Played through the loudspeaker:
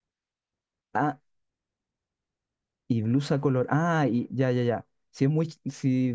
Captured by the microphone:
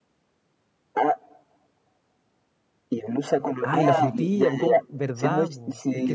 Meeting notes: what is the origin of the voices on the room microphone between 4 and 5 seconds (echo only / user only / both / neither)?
both